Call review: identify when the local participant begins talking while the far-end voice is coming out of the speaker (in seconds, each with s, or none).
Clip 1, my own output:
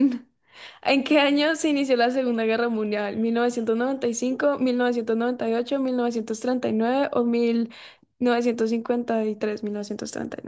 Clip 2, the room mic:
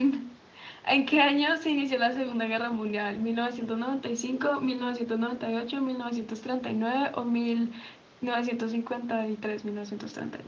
none